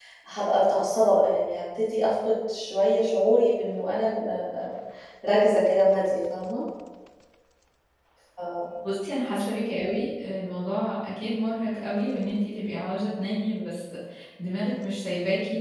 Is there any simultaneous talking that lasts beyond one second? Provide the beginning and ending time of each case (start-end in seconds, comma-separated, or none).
none